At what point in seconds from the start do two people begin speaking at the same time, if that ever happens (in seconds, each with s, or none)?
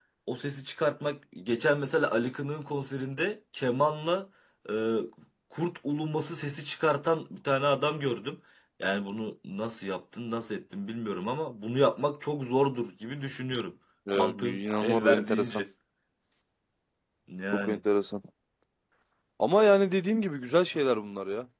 14.1 s